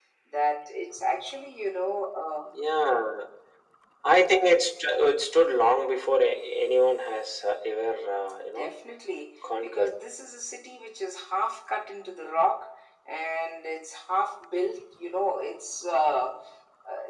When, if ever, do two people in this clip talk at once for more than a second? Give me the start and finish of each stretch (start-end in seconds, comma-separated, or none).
none